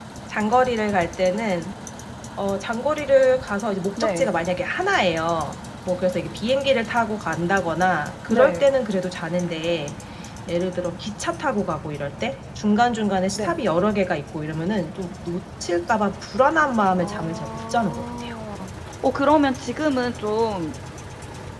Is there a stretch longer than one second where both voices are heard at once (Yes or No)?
Yes